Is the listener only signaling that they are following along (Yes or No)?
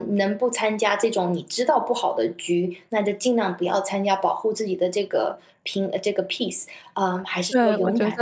No